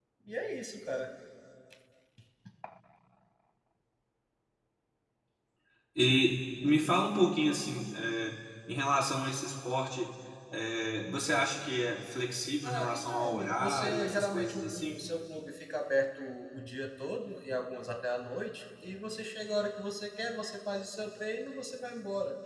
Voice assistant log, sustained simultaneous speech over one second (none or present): present